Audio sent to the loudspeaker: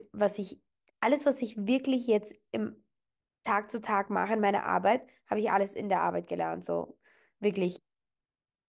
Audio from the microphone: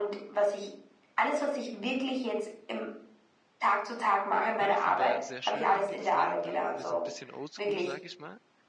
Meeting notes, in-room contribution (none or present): present